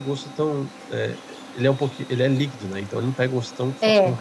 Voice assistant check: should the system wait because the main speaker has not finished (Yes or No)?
Yes